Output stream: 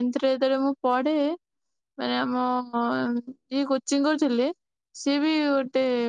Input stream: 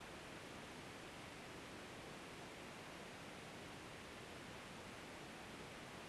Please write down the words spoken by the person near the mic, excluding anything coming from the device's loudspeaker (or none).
none